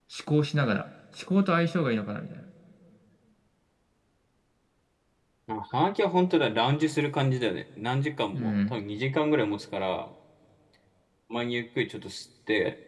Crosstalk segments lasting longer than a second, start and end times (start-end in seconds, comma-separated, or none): none